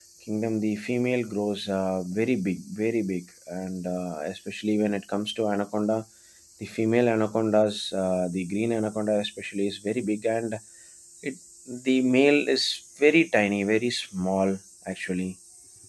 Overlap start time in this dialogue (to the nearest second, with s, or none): none